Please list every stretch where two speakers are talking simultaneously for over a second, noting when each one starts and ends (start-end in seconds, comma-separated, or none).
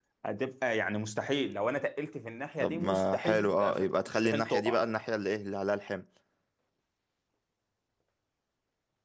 2.6-4.8